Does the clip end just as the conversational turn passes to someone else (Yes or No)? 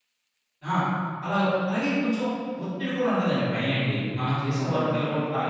No